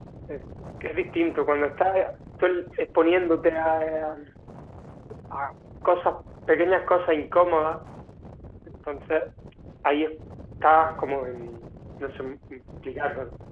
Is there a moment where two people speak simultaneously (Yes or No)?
No